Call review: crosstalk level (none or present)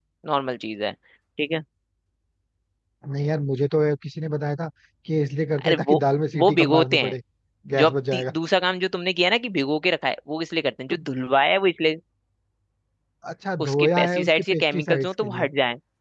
present